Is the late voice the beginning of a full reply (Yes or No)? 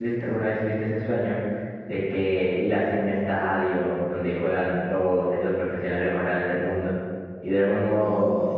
No